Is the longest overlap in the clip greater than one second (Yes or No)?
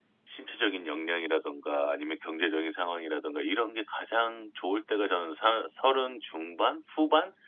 No